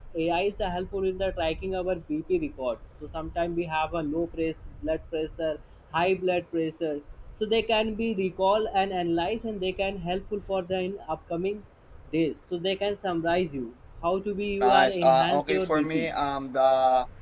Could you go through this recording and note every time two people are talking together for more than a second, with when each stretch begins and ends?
14.6-16.1

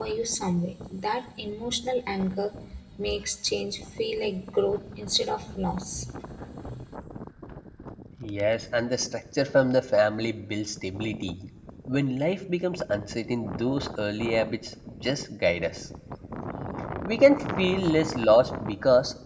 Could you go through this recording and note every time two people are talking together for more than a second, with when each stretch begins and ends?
none

